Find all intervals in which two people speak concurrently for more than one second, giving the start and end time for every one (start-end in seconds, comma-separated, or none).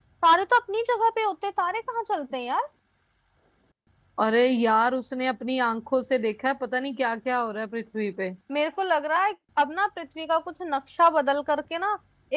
none